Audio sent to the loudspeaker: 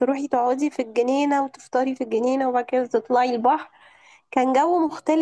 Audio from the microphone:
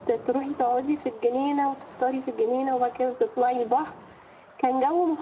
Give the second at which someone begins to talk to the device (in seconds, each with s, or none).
none